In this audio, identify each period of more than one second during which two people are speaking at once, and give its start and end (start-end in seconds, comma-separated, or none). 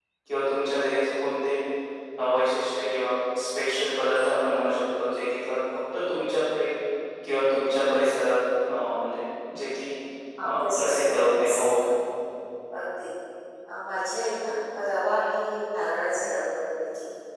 10.4-11.7